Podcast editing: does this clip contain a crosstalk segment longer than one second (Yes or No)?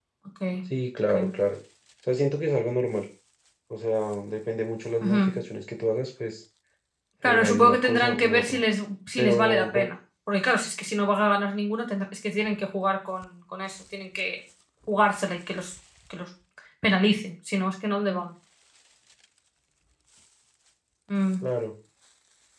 Yes